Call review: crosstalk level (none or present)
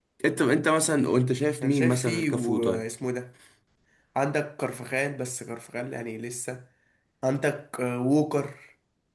present